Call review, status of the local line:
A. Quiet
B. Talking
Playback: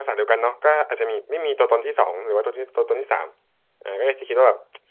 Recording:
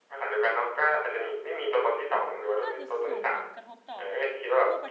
B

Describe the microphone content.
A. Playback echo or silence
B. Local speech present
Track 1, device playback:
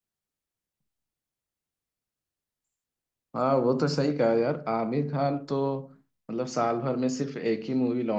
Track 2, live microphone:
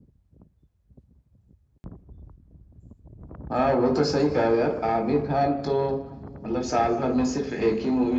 A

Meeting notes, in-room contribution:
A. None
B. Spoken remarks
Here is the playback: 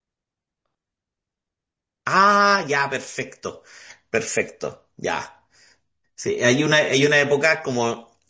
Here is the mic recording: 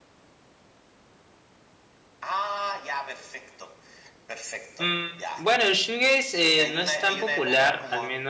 B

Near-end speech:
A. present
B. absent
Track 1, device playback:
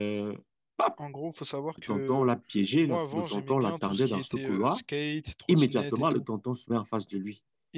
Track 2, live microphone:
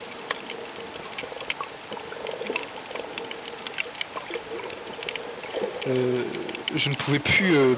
A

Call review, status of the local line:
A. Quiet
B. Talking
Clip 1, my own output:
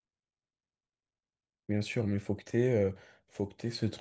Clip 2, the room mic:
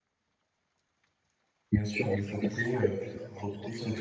B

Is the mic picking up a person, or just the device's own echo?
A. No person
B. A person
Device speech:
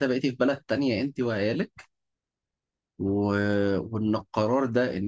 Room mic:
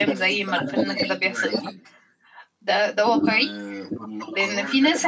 B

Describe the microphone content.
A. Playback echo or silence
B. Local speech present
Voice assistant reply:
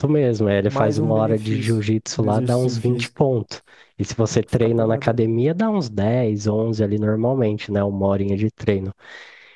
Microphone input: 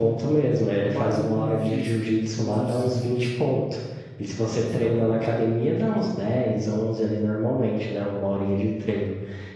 A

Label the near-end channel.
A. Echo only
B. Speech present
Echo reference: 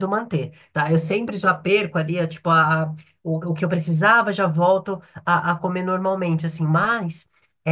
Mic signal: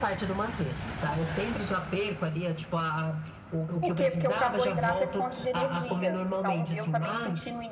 B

